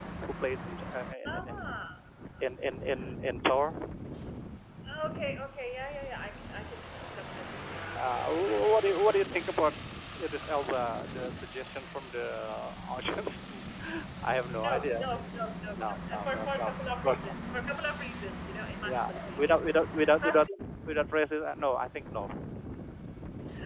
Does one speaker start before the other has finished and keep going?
Yes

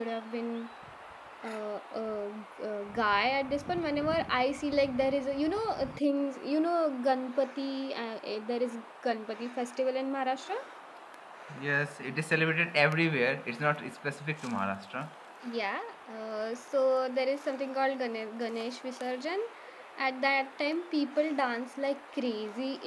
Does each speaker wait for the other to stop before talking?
Yes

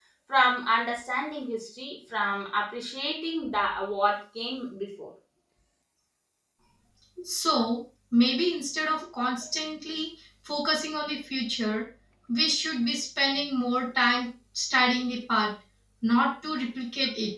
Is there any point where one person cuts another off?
No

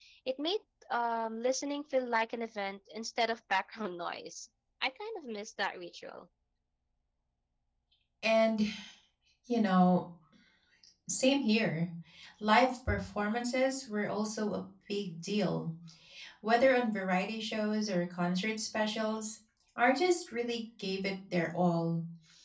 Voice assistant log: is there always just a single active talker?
Yes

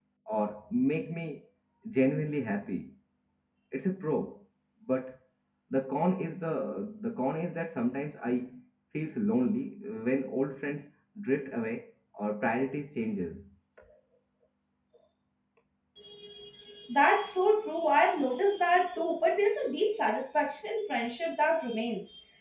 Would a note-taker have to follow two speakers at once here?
No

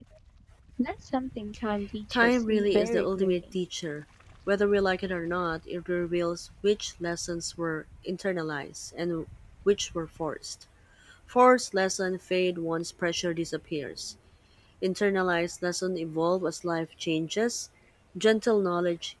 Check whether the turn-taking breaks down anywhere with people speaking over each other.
Yes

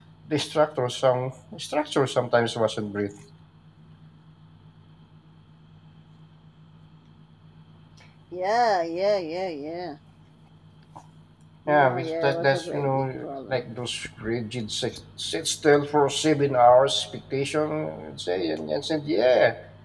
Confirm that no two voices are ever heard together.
No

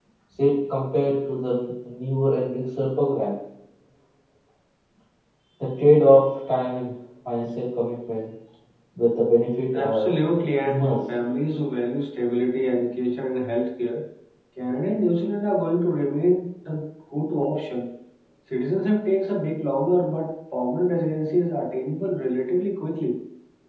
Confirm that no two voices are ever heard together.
No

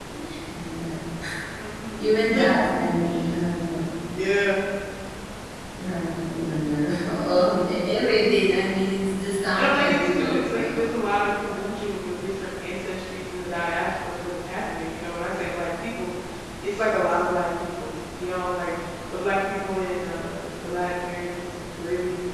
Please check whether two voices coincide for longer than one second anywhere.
Yes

